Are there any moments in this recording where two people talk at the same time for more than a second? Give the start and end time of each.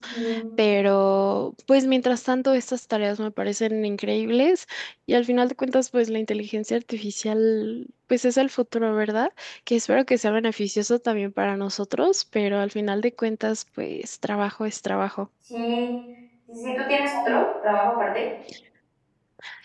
none

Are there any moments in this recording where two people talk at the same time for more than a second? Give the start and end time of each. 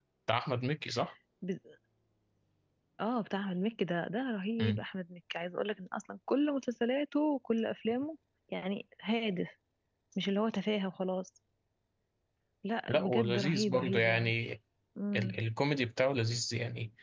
12.9-14.3

